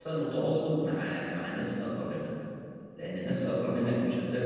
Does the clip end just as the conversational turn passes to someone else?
No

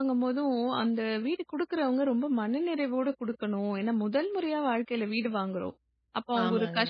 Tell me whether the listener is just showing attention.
Yes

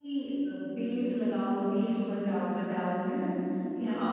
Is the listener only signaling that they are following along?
Yes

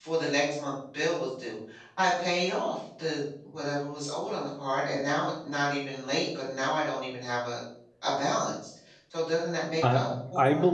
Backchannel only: No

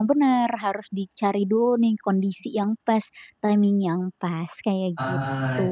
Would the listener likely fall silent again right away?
No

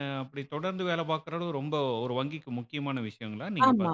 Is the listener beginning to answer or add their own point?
Yes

